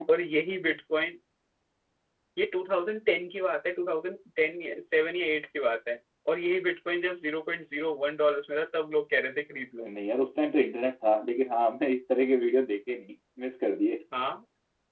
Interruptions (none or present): none